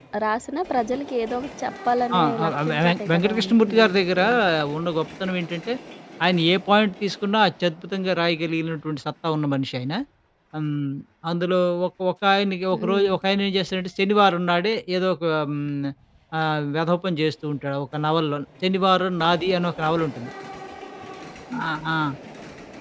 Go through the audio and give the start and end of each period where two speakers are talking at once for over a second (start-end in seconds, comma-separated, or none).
2.1-4.2